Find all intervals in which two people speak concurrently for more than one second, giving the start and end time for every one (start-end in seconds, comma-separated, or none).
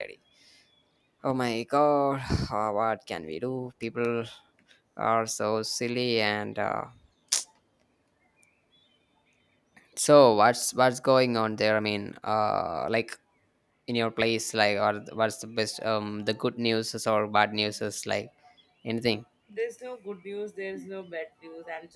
none